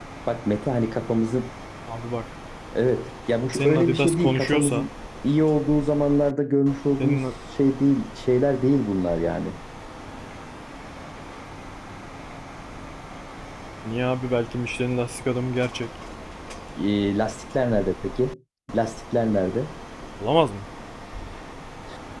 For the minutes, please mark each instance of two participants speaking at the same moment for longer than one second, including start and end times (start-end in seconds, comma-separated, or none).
3.5-4.9